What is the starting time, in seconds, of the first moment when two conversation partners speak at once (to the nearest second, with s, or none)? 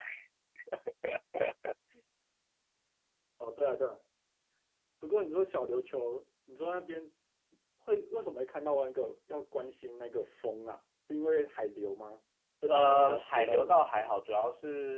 13 s